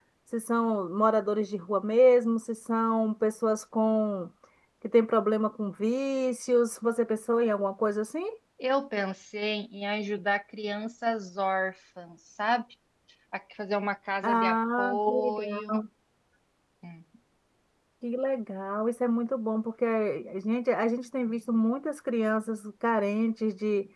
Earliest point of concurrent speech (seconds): 14 s

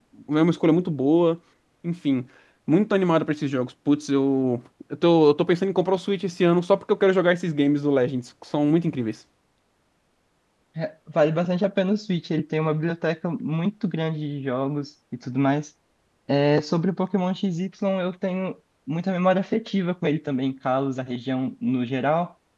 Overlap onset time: none

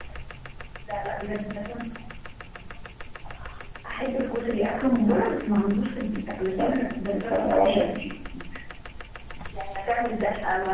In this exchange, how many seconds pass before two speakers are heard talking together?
7 s

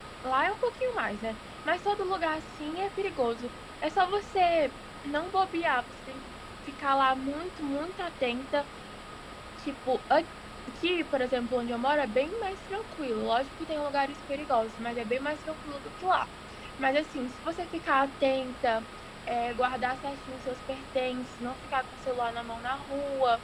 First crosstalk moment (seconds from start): none

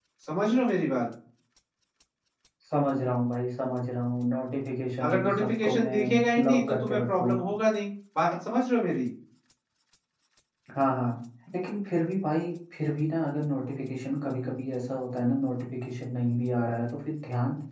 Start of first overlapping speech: 5 s

